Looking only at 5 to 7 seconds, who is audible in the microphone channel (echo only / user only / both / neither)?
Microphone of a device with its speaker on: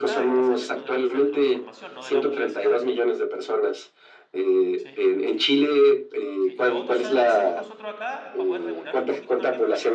both